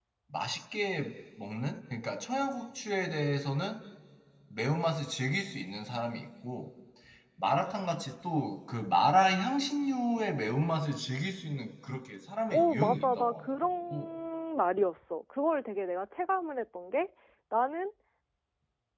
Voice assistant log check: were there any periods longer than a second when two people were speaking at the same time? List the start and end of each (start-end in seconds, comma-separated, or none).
12.5-14.1